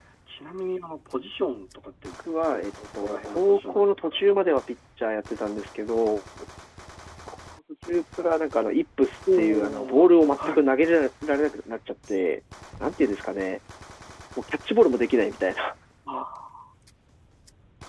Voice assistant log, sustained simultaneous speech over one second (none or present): present